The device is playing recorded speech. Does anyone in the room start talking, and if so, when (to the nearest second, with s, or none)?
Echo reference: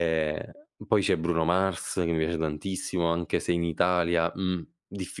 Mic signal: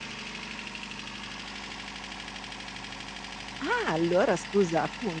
4 s